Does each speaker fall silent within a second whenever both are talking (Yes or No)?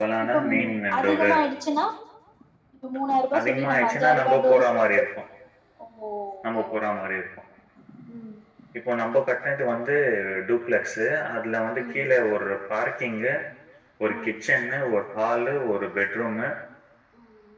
No